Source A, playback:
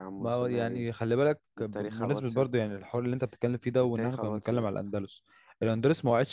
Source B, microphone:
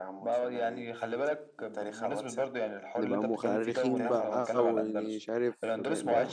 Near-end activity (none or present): present